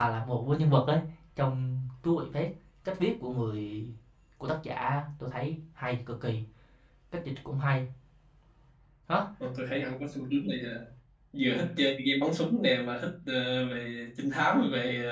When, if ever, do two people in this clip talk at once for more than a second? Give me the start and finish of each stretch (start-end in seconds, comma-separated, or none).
none